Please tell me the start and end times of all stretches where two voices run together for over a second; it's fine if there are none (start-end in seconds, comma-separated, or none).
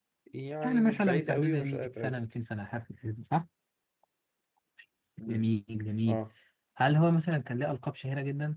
0.6-2.2